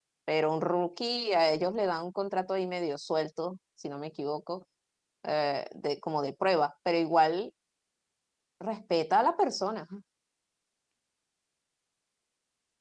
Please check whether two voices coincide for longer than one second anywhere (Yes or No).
No